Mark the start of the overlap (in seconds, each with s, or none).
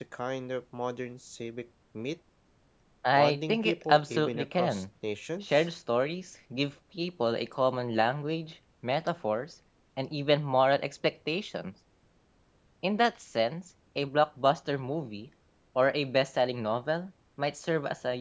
3.1 s